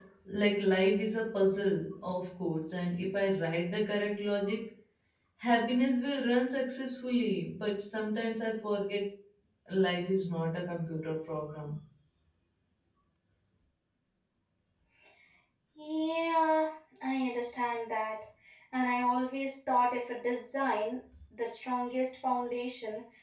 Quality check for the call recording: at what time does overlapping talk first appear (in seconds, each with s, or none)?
none